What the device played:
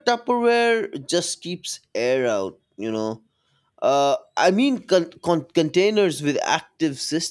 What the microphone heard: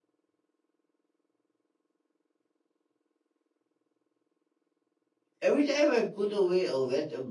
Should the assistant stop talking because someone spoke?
Yes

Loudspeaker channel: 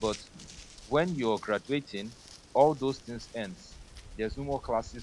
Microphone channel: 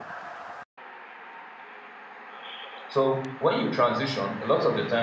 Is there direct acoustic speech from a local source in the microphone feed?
Yes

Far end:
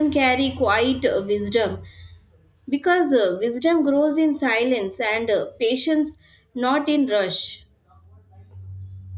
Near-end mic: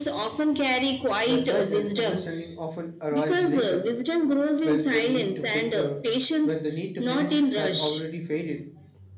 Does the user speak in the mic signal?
Yes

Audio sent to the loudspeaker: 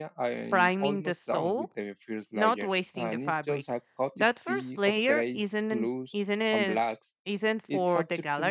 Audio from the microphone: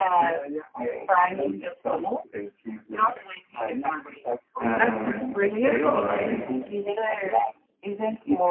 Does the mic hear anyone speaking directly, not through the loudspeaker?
Yes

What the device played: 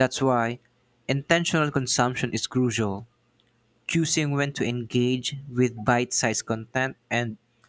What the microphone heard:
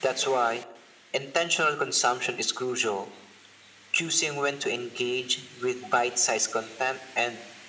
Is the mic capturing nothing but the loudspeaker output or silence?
Yes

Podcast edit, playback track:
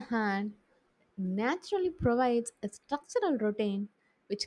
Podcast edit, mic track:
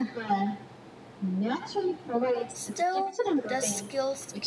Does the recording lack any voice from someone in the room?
No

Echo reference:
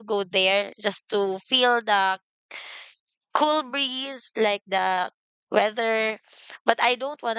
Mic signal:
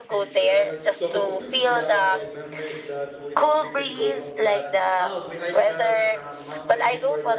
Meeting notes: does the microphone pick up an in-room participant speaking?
Yes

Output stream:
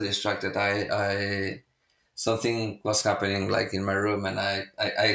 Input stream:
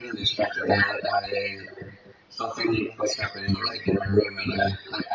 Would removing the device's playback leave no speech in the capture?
Yes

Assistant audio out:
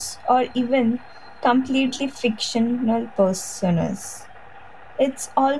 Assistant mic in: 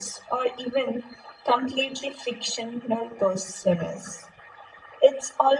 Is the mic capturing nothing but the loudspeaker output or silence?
Yes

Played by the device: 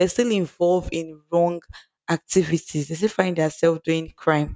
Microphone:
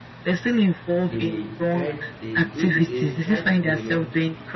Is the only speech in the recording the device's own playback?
No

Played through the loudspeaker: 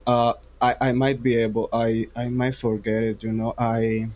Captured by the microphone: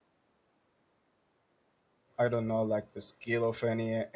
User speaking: Yes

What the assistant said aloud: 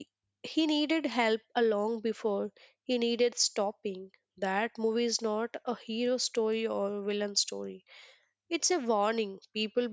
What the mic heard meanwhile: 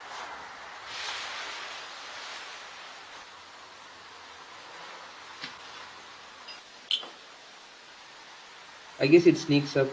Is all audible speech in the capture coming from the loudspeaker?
No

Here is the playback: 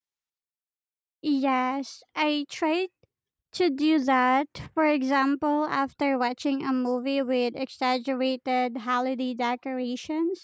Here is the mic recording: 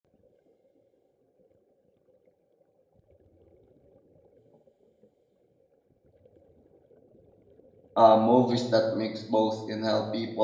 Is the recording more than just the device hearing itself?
Yes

